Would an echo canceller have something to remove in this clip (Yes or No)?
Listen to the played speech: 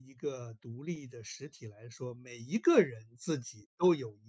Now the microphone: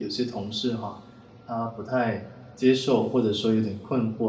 No